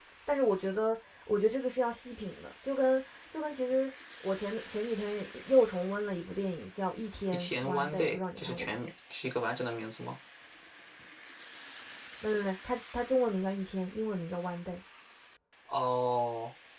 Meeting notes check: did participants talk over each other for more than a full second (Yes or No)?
Yes